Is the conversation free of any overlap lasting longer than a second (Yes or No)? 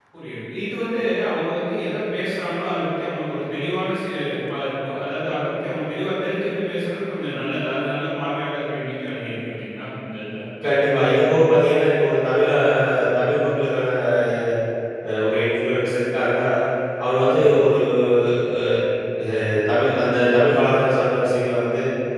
Yes